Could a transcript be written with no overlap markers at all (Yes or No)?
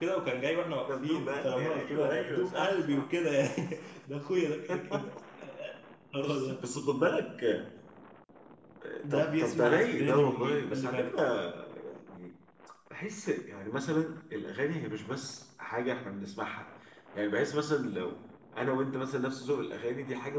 No